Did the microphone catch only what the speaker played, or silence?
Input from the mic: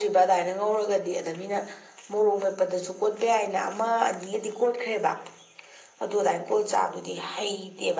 Yes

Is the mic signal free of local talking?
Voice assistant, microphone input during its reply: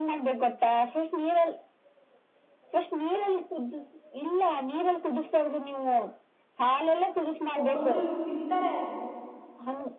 No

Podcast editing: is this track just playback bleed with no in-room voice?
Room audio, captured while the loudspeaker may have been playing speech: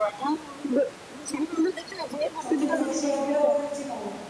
No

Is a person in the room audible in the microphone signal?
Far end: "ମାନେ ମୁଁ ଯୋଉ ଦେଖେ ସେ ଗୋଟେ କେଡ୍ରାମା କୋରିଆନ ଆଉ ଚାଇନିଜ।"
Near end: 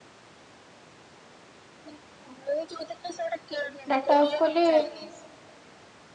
Yes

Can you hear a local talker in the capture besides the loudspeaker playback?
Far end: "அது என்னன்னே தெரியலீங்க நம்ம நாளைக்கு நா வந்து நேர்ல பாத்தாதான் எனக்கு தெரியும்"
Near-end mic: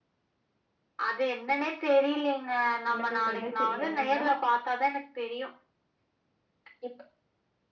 Yes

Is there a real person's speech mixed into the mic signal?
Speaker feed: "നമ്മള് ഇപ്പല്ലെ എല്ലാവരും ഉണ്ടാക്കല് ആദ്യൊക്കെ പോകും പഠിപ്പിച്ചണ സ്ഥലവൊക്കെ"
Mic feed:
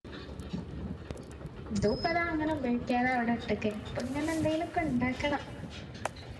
Yes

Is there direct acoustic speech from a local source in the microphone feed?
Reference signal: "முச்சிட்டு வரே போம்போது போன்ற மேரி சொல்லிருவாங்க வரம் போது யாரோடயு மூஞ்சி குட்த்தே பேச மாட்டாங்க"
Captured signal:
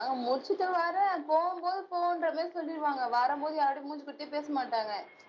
No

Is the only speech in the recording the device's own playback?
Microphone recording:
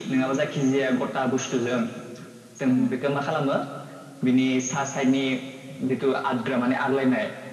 No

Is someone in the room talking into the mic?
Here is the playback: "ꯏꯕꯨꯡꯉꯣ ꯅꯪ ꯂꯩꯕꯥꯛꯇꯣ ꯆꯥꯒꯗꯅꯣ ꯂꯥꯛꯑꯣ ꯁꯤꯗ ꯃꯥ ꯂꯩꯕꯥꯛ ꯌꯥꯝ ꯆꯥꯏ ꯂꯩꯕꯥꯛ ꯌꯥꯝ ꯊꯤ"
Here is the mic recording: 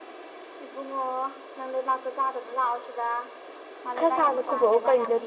Yes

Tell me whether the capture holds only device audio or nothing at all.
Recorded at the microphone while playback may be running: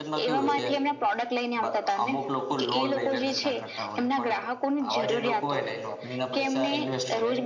No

